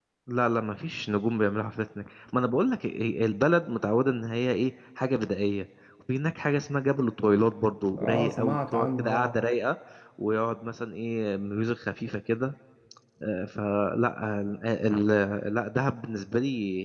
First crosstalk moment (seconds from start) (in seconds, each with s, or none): 7.9 s